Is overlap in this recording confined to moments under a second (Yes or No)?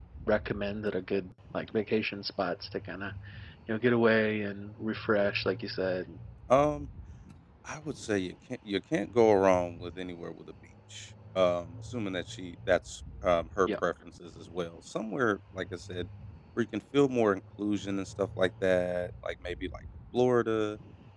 Yes